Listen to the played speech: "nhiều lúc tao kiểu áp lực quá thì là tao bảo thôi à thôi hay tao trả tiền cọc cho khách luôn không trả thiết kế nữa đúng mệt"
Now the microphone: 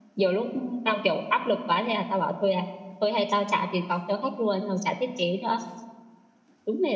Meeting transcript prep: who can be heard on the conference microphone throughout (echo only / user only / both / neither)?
echo only